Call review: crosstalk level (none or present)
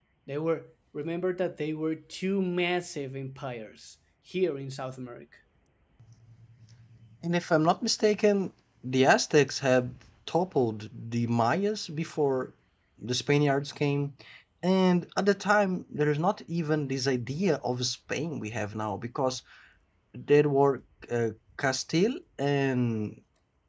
none